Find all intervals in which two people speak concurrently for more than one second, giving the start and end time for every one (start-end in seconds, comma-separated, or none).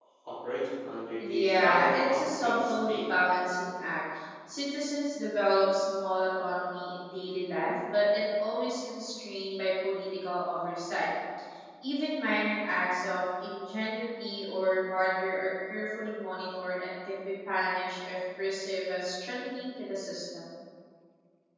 1.4-3.0